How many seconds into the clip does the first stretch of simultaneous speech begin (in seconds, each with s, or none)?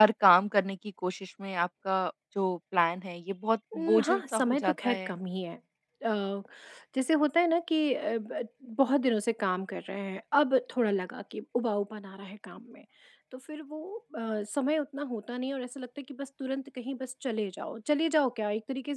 3.7 s